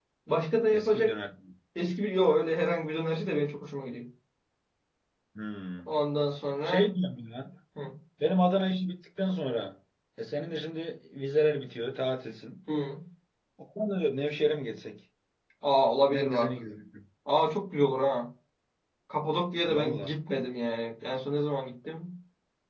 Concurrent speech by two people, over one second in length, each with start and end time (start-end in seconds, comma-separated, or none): none